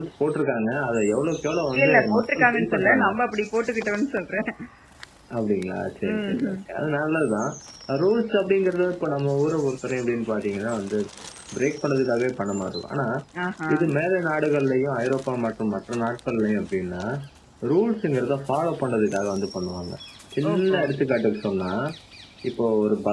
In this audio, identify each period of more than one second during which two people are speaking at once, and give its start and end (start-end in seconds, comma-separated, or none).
1.8-3.0